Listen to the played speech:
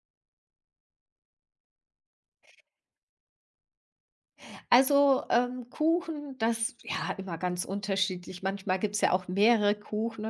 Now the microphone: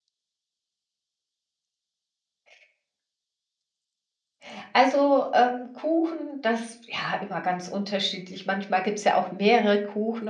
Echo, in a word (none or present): present